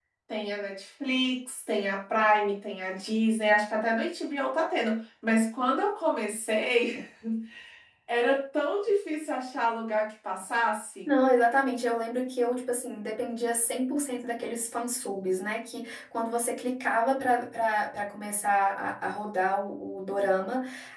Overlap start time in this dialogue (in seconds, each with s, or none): none